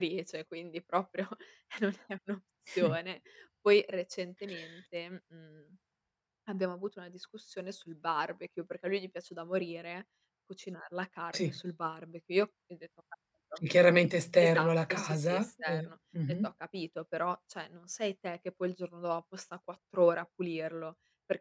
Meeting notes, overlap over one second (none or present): present